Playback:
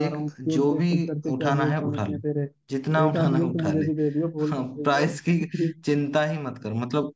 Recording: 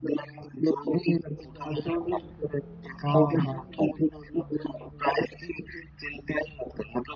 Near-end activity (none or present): present